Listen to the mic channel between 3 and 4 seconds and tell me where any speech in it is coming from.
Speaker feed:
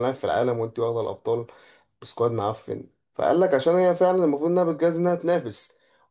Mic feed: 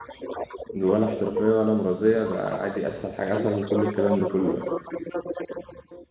both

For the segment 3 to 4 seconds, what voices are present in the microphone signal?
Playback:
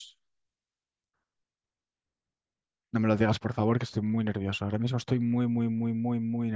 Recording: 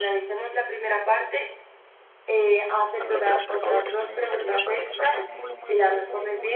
both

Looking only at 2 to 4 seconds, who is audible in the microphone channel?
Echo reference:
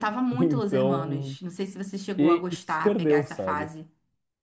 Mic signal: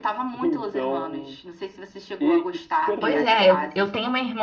both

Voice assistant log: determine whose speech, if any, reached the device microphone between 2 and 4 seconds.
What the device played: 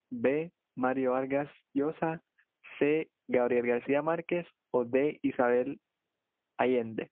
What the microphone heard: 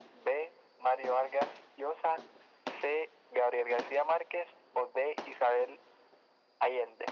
echo only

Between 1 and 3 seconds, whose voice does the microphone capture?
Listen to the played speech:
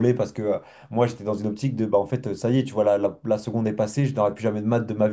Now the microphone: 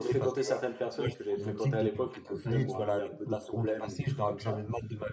both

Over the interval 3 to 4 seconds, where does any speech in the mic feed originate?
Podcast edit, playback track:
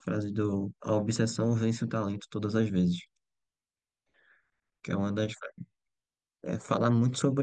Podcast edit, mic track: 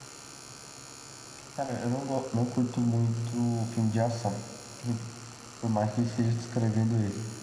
user only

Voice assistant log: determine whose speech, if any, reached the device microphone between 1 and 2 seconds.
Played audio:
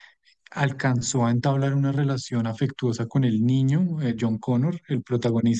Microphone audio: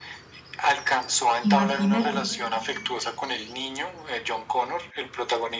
both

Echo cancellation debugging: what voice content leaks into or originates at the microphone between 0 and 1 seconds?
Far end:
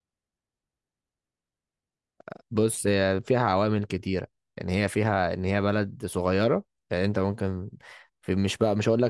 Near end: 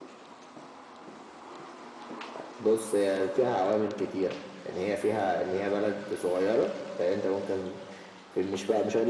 neither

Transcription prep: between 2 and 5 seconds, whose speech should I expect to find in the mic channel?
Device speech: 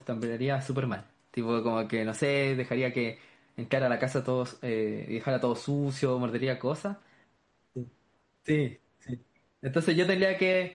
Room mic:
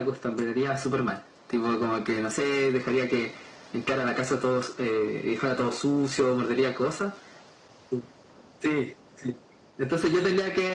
echo only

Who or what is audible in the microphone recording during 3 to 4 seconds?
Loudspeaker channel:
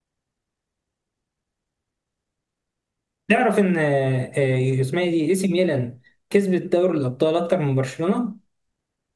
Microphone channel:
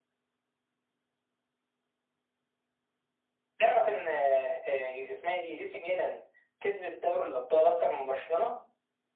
echo only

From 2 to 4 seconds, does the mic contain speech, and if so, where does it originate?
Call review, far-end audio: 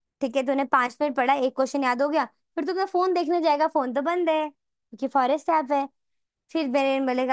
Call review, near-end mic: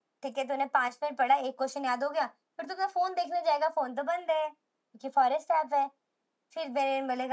echo only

